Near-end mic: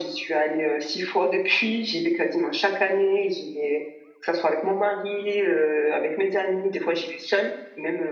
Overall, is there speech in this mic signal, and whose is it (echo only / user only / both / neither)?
echo only